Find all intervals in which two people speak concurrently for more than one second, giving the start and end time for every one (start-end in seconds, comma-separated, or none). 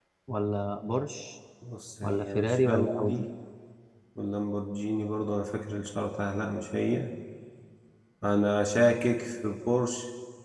2.0-3.2